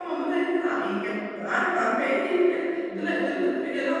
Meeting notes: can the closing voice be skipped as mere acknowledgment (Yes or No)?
Yes